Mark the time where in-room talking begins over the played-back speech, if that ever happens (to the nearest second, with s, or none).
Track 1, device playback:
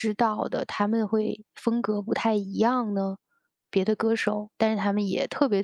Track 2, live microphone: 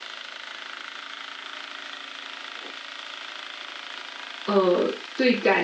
4 s